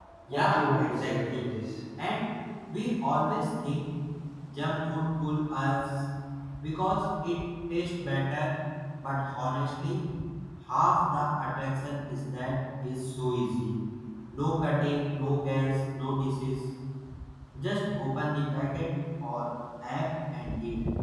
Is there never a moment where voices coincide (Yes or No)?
No